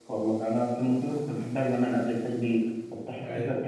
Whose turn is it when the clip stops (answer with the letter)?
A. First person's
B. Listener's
A